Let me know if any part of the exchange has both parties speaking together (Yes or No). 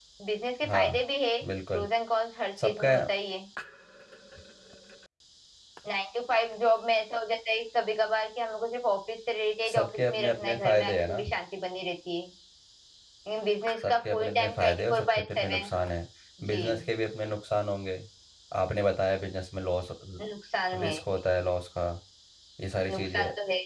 Yes